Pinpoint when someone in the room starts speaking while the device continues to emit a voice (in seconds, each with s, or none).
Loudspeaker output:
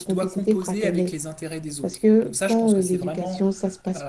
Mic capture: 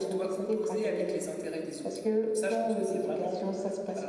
none